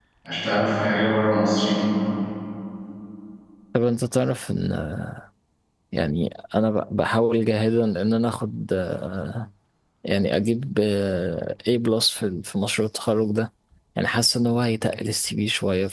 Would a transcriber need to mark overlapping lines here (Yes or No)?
No